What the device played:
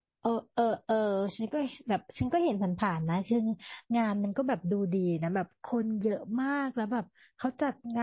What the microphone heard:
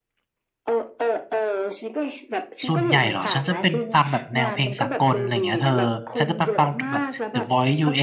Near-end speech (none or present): present